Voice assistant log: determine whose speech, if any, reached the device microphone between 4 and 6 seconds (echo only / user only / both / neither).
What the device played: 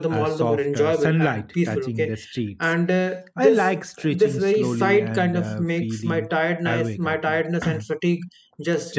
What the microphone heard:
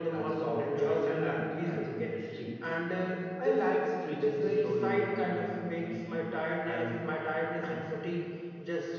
echo only